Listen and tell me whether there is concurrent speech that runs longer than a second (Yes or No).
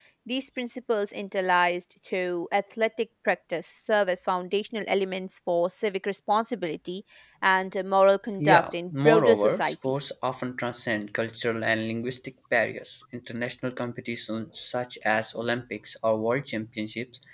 Yes